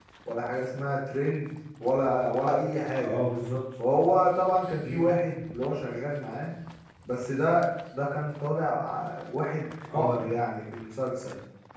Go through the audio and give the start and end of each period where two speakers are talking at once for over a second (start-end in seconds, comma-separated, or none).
none